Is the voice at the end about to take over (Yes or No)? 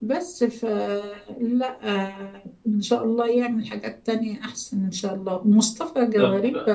No